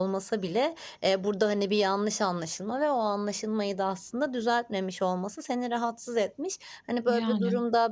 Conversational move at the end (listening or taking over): listening